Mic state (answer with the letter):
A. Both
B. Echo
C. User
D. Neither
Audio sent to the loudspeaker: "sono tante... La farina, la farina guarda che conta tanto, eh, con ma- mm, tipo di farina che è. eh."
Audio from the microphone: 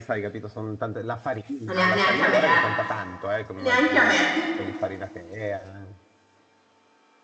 A